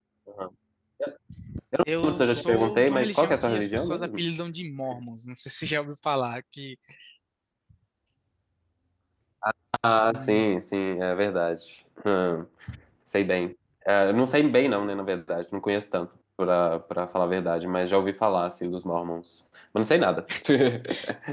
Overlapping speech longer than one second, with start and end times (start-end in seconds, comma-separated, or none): 2.0-4.2